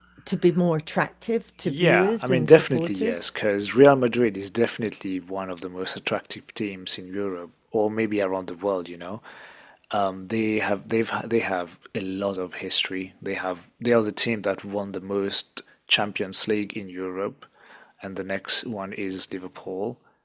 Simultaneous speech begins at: 1.6 s

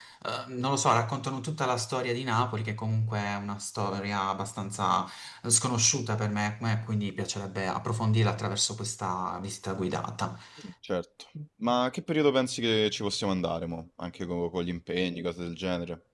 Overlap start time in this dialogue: none

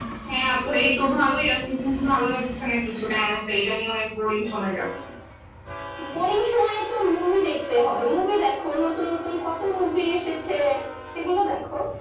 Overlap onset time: none

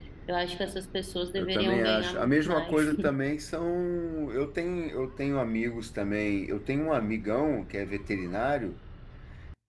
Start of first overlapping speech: 1.4 s

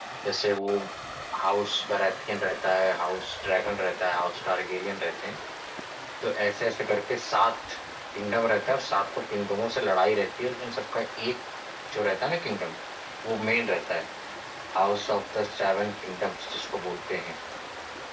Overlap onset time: none

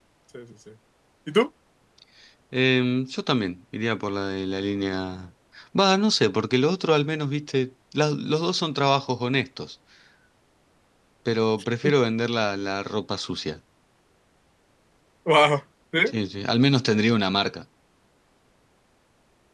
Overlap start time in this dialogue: none

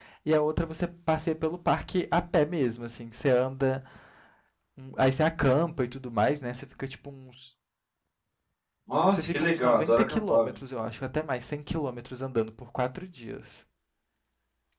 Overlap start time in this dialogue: 9.1 s

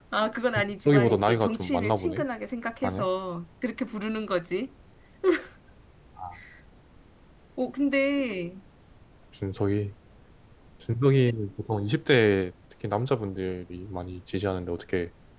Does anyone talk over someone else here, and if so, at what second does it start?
0.8 s

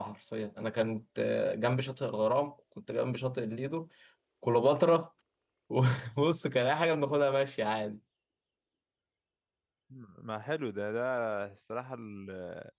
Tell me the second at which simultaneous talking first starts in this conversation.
none

